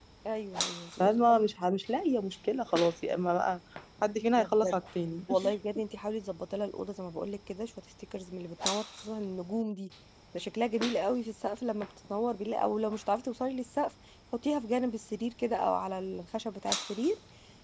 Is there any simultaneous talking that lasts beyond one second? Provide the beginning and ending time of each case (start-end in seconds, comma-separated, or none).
none